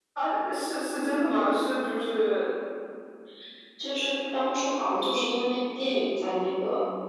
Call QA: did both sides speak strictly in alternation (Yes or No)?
Yes